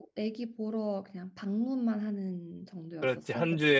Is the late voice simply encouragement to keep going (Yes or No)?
No